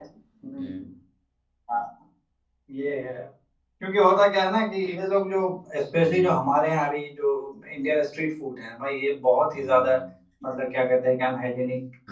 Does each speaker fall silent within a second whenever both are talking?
Yes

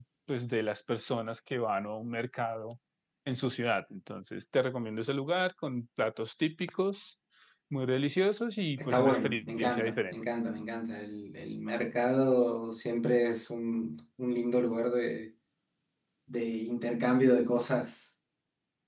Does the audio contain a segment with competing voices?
Yes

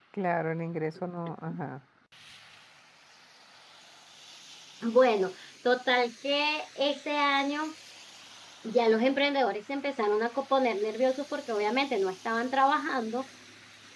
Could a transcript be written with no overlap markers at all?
Yes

